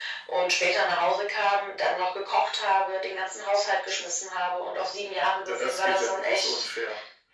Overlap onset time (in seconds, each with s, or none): 5.5 s